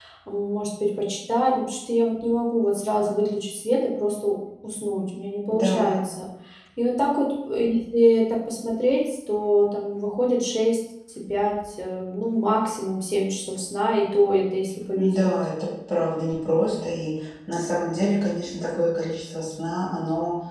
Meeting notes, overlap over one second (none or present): none